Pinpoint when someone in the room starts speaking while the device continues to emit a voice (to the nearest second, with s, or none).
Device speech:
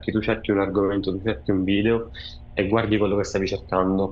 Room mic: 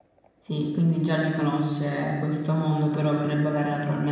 0 s